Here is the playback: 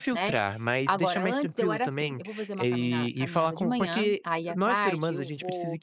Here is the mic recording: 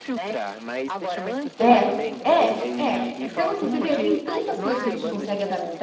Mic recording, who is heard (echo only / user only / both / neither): both